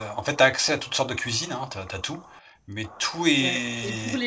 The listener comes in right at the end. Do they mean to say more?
Yes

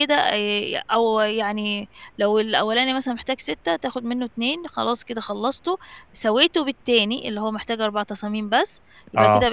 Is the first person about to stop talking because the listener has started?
No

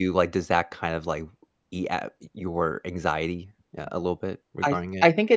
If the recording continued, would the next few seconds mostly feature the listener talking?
Yes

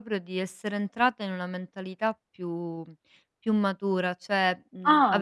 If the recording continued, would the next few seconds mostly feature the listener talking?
No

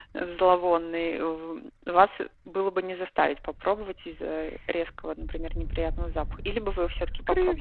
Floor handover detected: Yes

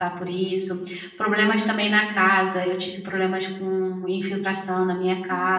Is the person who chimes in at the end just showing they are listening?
Yes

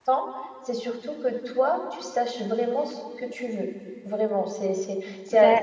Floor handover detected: No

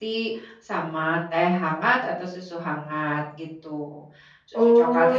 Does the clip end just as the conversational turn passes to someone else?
Yes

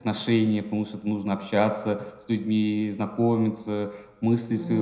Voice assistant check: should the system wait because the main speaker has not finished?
Yes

